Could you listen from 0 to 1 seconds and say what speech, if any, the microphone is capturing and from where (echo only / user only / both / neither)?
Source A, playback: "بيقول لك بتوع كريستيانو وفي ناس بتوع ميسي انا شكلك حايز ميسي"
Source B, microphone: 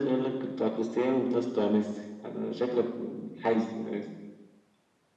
echo only